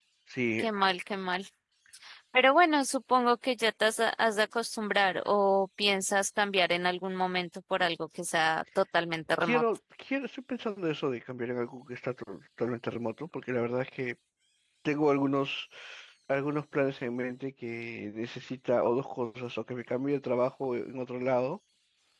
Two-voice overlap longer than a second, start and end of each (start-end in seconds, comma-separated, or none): none